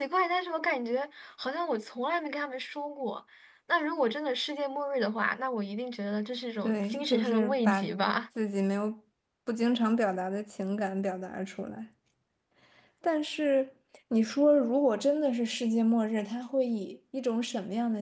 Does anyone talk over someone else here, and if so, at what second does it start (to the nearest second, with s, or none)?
7 s